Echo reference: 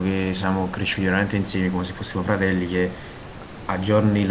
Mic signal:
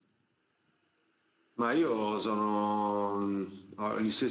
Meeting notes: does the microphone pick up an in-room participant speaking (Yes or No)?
Yes